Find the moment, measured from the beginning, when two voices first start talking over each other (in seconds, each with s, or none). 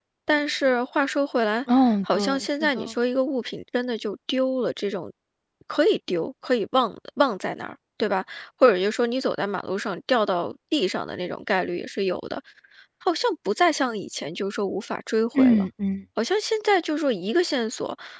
1.7 s